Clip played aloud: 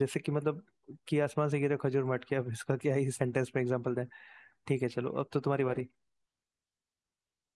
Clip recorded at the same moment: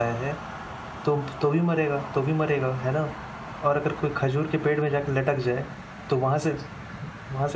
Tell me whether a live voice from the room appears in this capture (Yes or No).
Yes